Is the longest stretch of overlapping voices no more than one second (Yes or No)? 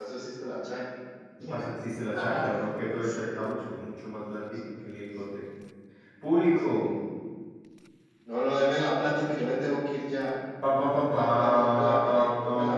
No